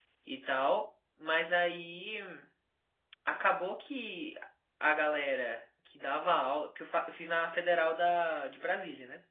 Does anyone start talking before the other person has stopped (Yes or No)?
No